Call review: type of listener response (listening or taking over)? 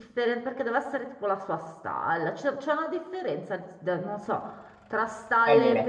listening